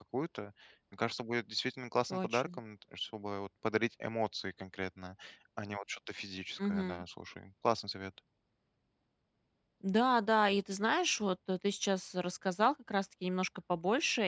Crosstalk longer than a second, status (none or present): none